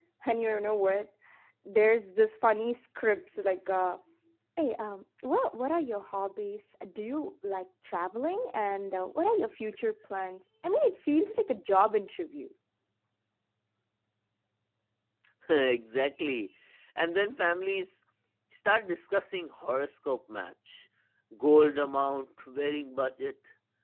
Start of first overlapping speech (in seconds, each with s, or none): none